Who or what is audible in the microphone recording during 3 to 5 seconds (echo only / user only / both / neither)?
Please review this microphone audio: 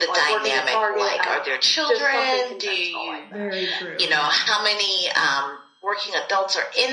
both